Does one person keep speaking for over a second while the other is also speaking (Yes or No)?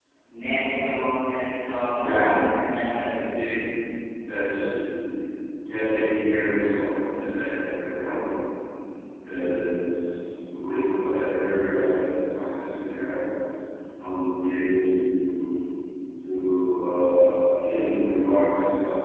No